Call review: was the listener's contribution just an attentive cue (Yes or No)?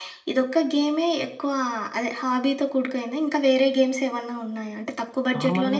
Yes